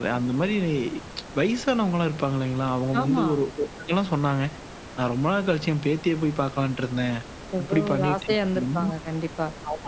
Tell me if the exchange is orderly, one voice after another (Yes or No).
No